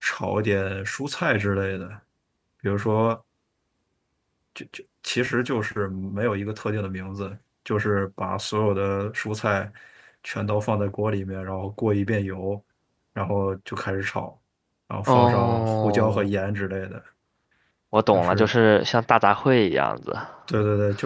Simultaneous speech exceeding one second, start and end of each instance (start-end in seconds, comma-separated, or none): 15.1-16.3